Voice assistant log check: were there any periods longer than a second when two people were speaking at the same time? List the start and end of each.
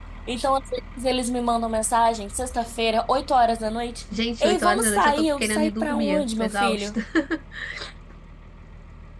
4.4-7.0

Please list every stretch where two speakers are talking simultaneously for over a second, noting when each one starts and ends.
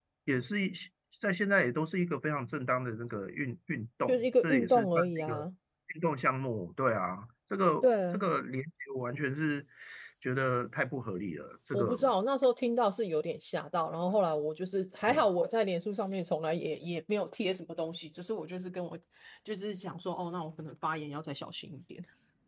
4.1-5.5

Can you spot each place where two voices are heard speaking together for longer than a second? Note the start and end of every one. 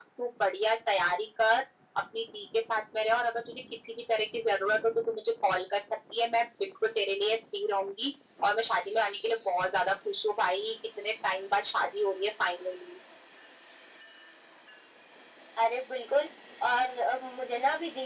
none

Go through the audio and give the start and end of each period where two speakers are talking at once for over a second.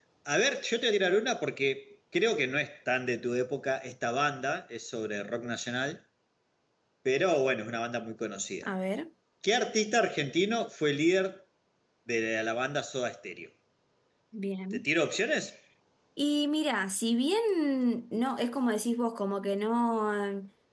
none

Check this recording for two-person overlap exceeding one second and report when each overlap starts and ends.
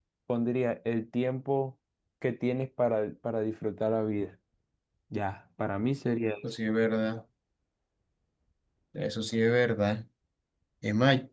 none

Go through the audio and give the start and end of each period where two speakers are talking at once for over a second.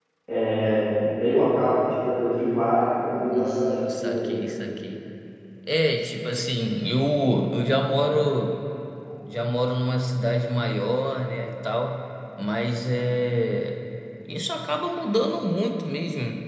3.3-4.6

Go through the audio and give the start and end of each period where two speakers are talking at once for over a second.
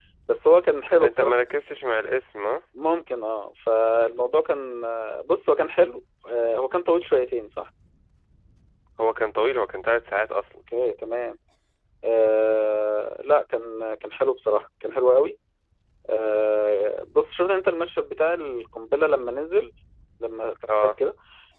none

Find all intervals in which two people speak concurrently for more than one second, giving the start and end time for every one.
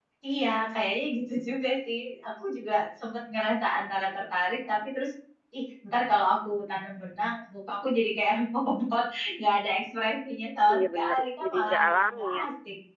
10.7-12.4

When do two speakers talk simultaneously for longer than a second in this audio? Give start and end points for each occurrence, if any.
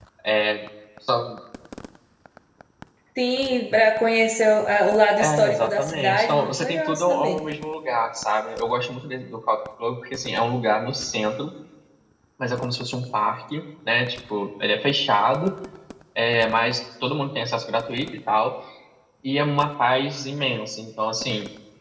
5.2-7.4

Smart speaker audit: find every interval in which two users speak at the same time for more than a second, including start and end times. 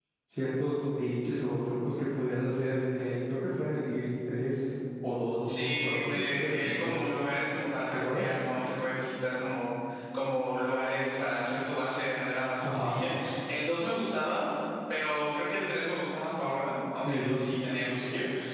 5.5-7.0

